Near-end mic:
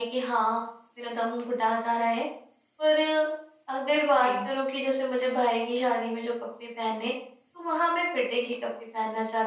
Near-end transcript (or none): जी।